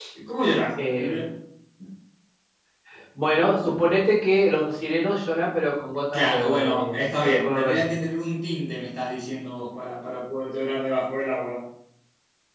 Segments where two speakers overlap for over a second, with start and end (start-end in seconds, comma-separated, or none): 6.1-7.9